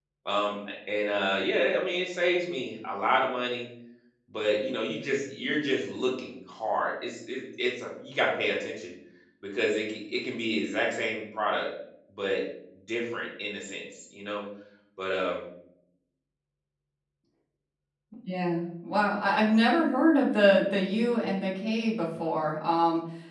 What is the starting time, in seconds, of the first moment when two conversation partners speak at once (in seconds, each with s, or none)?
none